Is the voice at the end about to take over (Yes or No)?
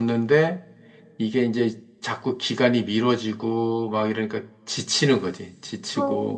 Yes